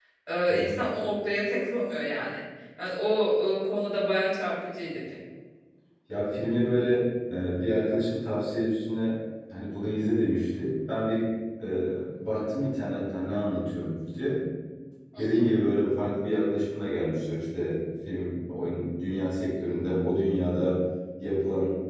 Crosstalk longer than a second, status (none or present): none